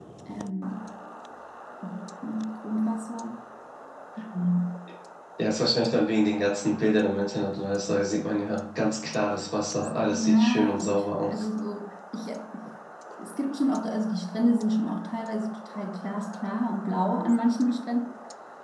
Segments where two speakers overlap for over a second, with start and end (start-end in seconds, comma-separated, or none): 10.1-11.5